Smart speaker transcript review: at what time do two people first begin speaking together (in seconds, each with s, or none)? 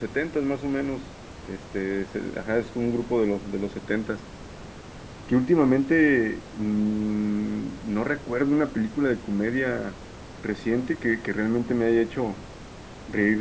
none